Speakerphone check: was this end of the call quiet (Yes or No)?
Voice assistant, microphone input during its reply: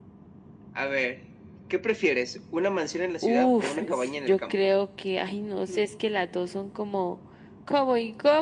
Yes